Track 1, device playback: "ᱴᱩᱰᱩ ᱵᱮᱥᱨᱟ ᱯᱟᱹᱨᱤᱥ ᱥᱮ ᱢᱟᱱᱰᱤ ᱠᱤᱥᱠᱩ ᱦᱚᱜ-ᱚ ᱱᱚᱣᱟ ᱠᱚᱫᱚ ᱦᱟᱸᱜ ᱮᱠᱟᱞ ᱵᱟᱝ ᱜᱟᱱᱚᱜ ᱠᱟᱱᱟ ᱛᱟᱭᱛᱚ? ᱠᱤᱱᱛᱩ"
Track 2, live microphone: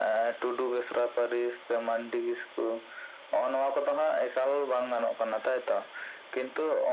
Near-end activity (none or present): none